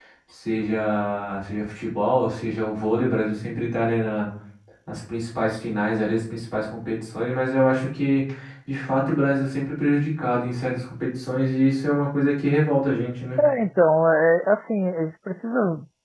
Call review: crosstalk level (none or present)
none